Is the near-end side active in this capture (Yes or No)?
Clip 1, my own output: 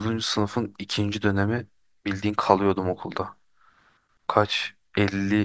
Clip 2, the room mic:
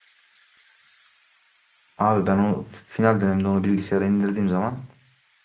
Yes